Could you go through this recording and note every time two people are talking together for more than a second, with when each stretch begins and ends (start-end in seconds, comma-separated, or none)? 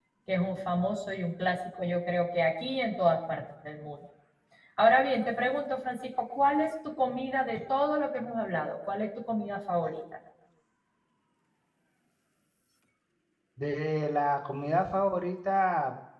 none